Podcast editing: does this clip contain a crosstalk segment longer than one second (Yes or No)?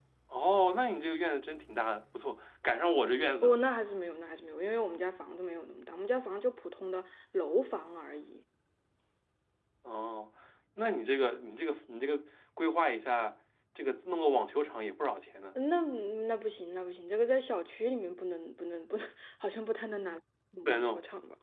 No